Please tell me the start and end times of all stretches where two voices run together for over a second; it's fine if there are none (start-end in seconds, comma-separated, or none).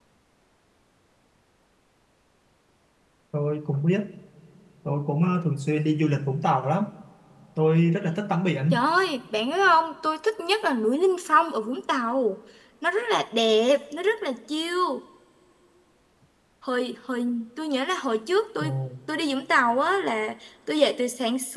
none